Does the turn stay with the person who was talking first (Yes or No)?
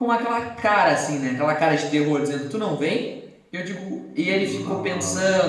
Yes